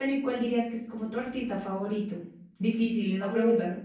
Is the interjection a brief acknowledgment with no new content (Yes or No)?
No